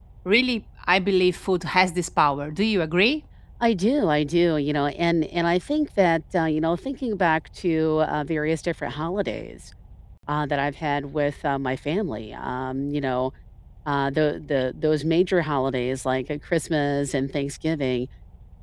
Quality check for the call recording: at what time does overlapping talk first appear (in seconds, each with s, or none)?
none